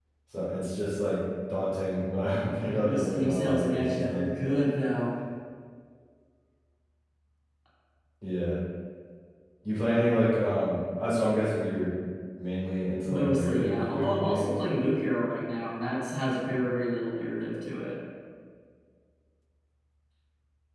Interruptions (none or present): present